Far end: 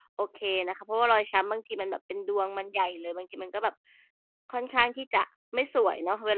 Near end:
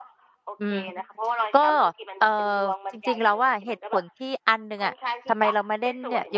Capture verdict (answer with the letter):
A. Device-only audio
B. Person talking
B